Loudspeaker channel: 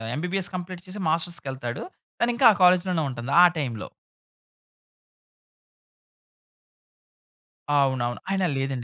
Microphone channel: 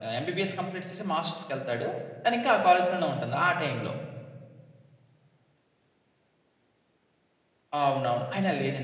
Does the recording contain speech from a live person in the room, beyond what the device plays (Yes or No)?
No